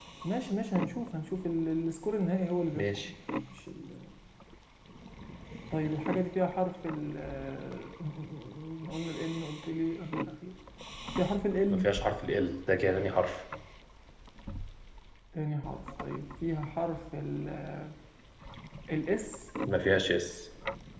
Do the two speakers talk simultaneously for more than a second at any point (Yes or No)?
No